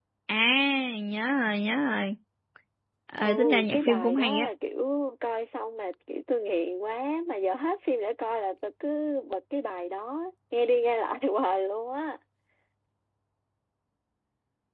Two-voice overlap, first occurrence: 3 s

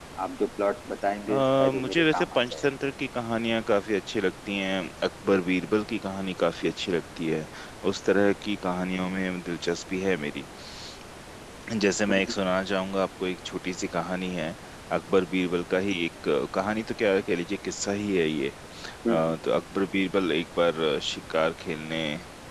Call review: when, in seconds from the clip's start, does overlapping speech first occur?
1 s

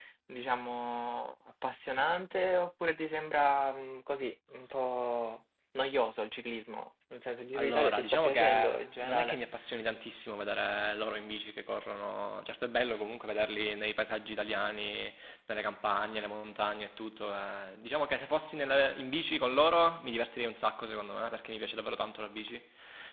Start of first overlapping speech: 8 s

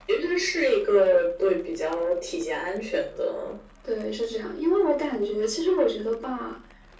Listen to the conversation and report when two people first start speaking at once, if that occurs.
none

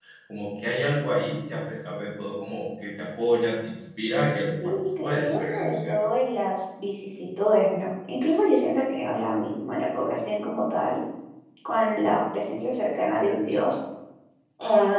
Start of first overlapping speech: 5 s

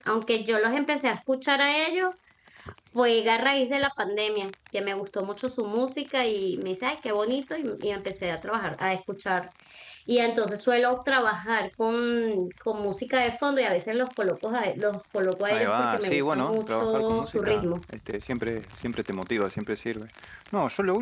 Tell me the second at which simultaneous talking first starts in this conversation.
15 s

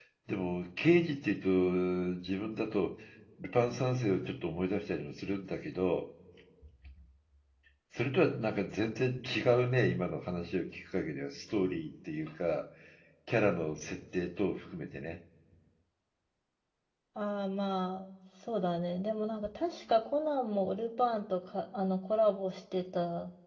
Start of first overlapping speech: none

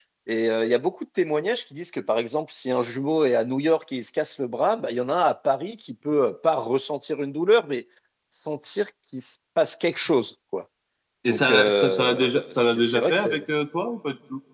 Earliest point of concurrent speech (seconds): 11 s

